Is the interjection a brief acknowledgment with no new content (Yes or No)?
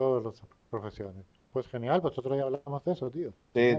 No